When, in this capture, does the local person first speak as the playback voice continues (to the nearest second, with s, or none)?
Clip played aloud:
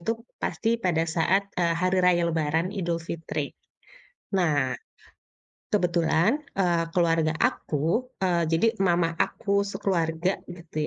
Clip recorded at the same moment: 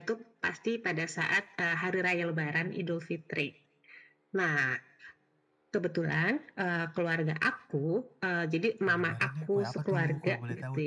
9 s